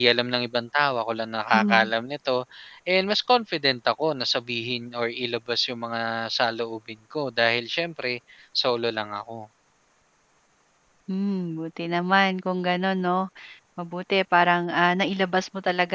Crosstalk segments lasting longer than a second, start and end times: none

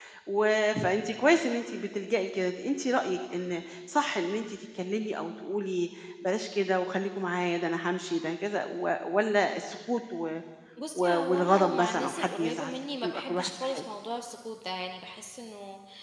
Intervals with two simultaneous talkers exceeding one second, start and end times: 10.9-13.8

